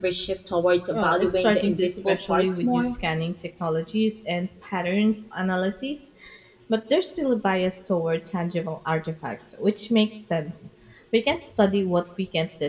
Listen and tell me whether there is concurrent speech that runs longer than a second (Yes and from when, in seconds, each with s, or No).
Yes, from 0.9 s